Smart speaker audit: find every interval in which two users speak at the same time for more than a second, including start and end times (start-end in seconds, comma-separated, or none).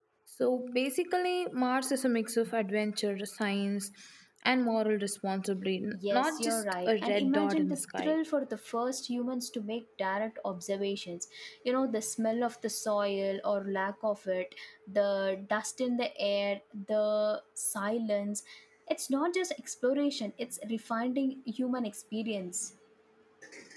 5.9-8.2